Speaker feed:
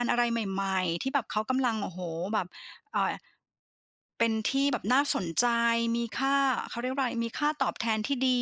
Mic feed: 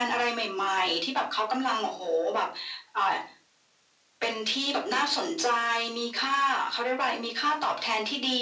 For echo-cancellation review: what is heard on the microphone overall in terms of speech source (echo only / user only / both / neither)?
echo only